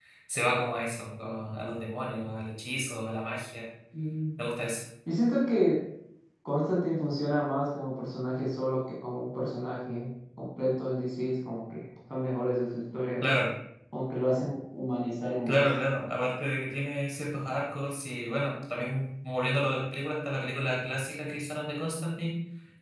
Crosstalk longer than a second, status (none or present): none